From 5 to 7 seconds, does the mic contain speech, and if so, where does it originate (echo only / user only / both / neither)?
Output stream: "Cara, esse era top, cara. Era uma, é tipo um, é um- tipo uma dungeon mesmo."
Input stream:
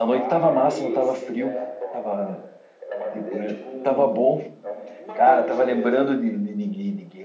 both